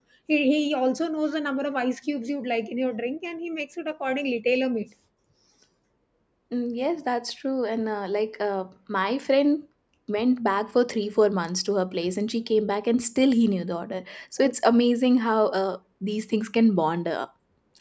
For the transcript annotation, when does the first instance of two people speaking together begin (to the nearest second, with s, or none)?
none